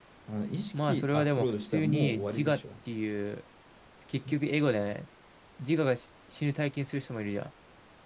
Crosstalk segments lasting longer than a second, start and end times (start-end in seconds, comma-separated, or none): 0.7-2.6